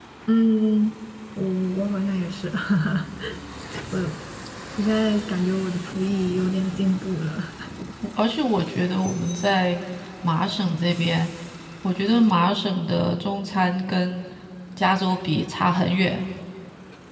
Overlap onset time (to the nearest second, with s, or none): none